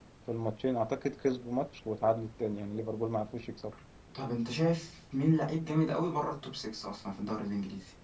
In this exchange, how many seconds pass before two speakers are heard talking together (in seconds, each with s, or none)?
none